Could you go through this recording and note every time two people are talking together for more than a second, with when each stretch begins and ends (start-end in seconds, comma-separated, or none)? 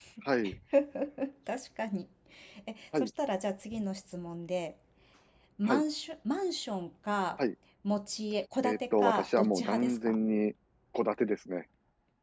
8.6-10.2